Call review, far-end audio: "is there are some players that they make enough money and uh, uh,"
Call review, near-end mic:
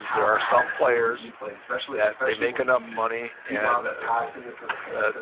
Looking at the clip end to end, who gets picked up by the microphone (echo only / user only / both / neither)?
both